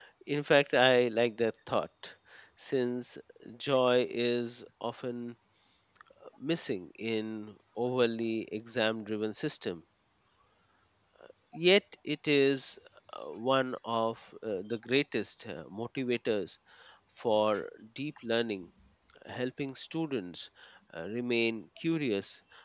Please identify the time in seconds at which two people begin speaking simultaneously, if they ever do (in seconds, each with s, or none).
none